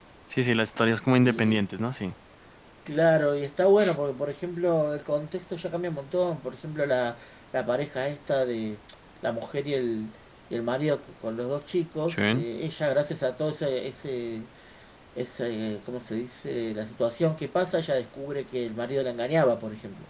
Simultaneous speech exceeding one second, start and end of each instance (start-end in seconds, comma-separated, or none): none